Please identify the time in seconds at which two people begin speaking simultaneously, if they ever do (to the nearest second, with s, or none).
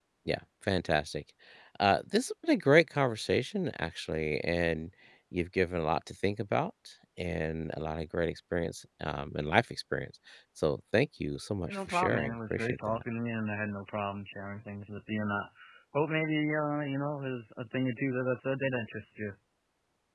12 s